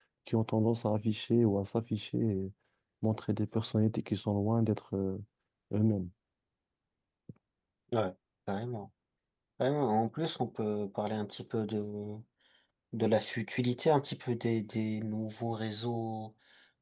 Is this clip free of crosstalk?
Yes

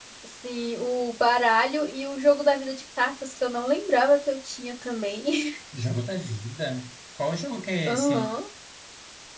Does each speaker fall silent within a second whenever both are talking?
Yes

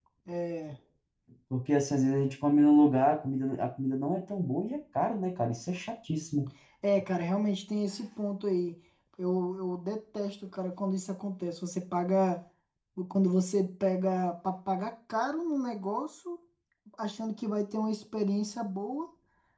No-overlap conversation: Yes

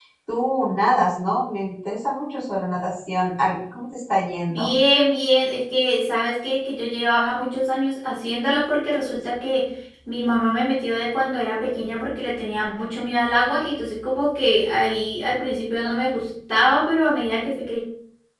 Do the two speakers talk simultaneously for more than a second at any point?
No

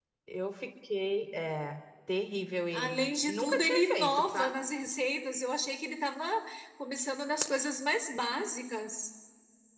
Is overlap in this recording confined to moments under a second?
No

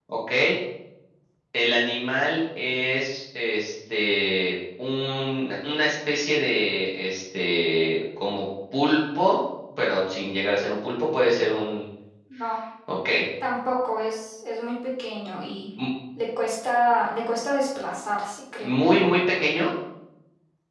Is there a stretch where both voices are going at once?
No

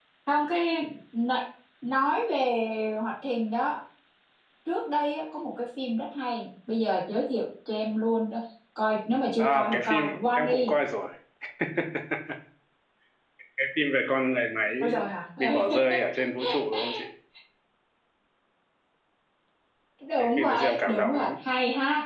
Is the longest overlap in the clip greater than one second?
Yes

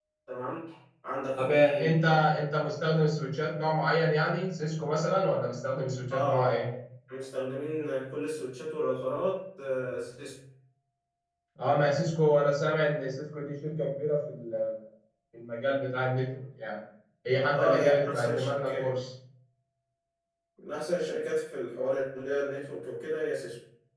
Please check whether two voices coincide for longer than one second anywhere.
Yes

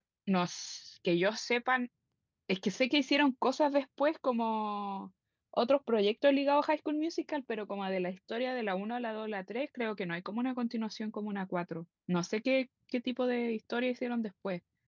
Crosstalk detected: No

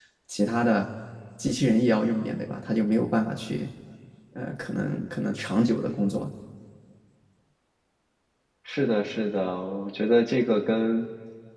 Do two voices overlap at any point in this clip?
No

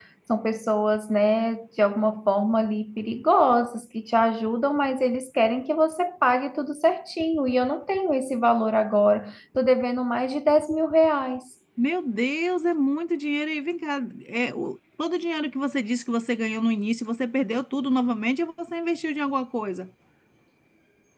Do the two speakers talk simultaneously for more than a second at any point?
No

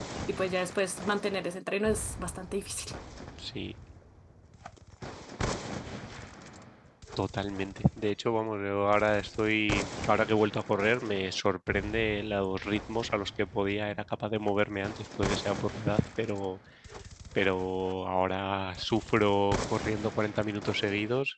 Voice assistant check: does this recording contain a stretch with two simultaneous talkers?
No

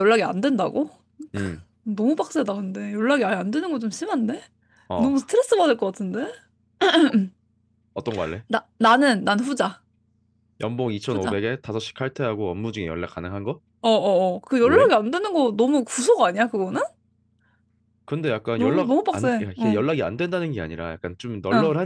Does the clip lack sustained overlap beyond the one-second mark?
No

